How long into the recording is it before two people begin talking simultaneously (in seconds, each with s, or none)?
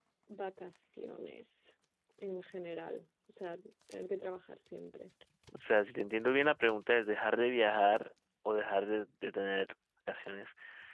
none